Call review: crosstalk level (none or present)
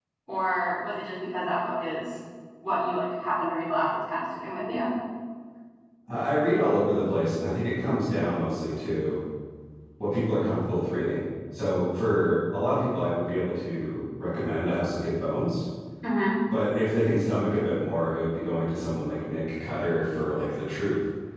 none